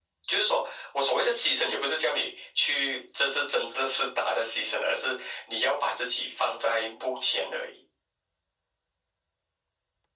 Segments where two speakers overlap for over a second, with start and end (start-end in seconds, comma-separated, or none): none